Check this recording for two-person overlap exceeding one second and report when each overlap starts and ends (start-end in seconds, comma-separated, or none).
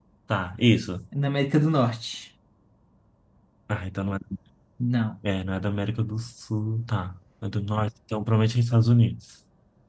none